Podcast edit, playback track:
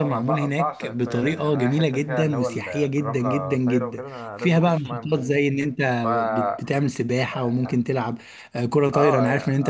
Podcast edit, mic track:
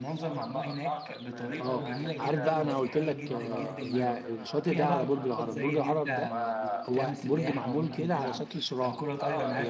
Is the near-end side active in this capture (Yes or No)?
Yes